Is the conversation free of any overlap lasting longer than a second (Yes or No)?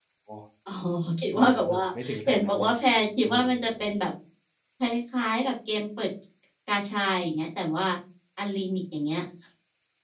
No